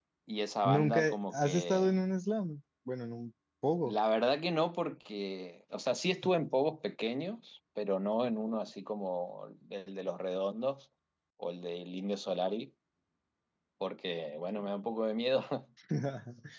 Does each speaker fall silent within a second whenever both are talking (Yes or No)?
No